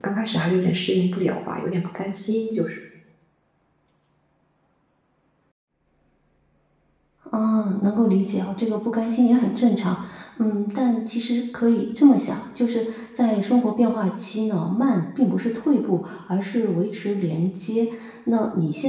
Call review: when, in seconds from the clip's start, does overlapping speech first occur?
none

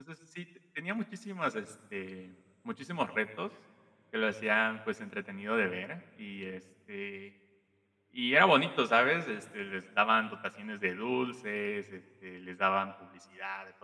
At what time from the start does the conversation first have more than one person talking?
none

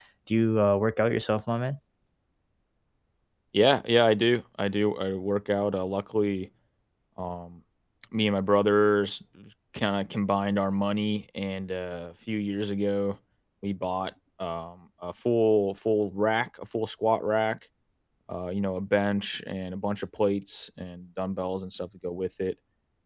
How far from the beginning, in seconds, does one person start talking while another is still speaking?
none

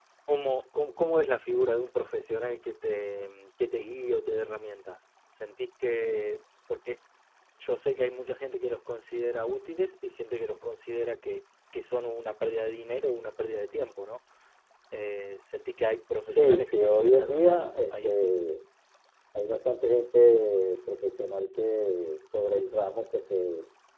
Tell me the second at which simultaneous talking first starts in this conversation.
16 s

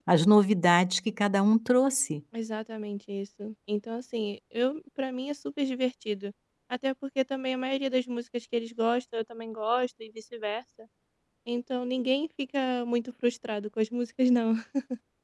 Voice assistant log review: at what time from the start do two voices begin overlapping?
none

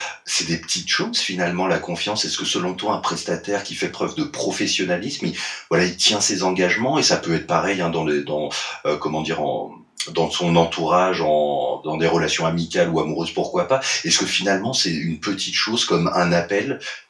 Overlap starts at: none

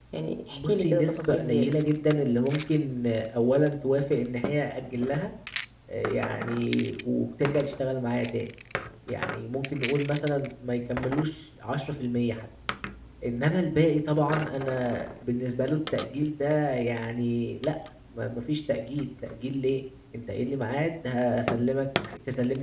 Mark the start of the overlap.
1 s

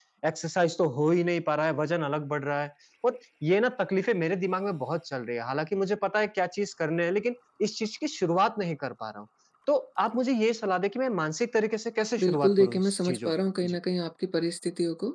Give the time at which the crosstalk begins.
12 s

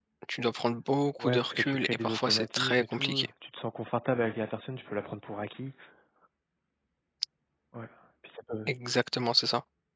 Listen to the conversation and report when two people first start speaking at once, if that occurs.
1 s

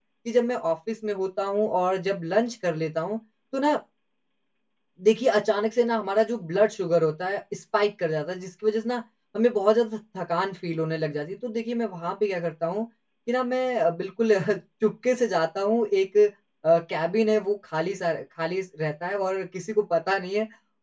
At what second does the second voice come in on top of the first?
none

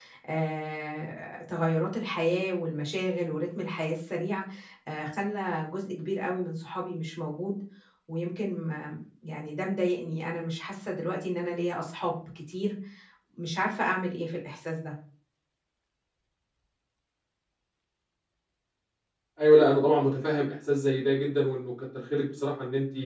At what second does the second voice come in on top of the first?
none

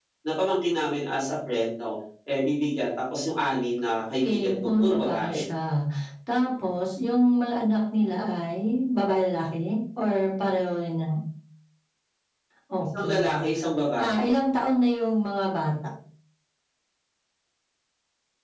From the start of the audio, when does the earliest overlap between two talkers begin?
4 s

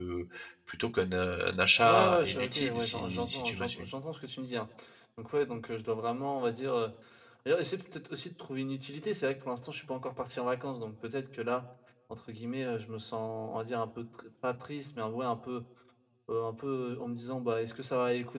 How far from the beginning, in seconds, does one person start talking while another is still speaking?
2 s

